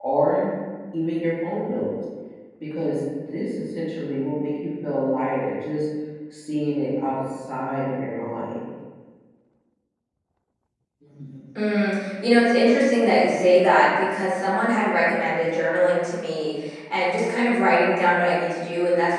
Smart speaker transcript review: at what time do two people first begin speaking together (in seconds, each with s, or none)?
none